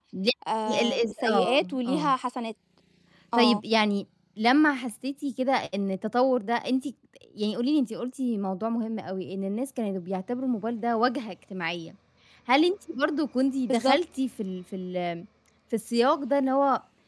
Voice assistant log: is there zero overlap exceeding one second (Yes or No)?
No